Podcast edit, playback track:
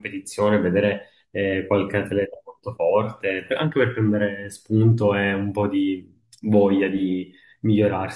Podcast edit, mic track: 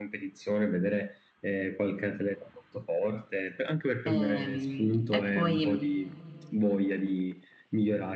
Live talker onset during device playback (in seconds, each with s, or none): 4.0 s